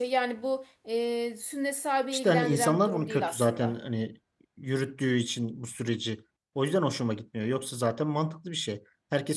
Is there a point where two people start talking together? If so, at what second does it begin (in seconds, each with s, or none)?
2.1 s